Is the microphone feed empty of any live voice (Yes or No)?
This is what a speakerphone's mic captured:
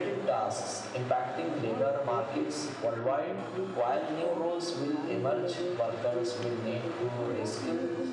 No